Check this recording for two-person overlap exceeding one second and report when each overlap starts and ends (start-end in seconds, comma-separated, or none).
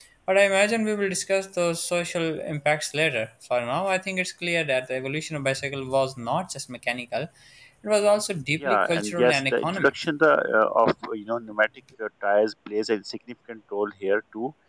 8.6-9.9